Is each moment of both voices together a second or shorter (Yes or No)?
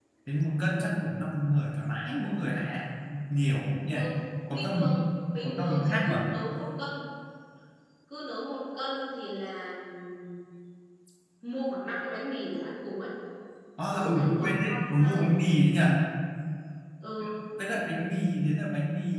No